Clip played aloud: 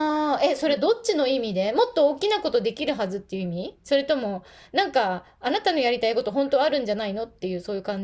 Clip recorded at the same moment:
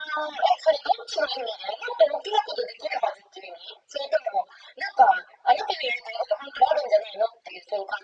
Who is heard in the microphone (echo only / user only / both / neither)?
echo only